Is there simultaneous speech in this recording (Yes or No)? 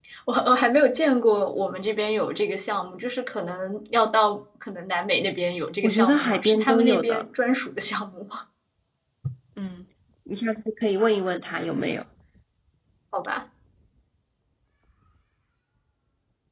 Yes